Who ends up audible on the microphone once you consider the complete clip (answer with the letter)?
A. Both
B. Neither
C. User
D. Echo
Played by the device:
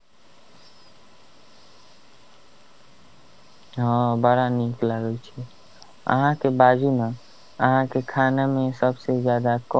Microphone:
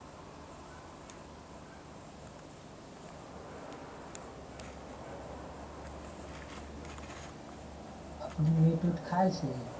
C